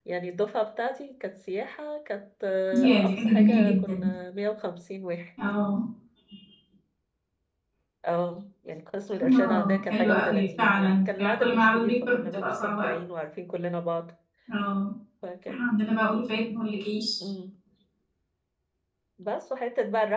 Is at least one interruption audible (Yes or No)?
Yes